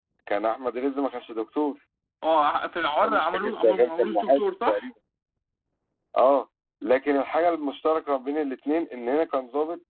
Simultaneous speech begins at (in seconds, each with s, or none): 3.0 s